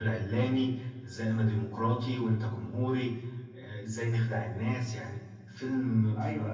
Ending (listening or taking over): taking over